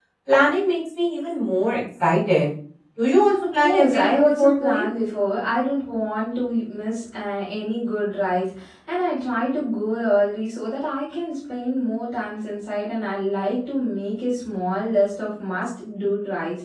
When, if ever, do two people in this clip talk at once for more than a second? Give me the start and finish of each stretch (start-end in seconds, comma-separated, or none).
3.6-4.9